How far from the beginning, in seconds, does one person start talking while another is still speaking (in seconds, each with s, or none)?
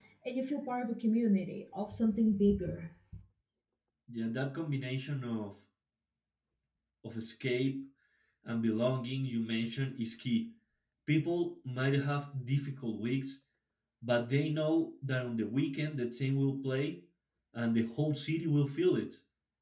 none